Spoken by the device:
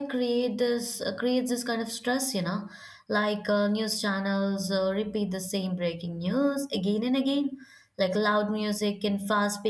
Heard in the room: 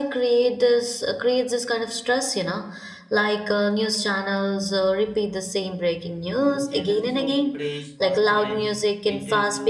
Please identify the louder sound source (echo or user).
echo